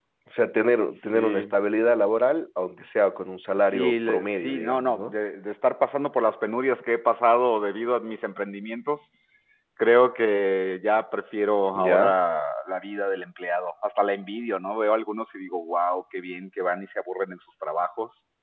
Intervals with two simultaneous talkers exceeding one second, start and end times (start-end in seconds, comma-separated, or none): 3.7-5.1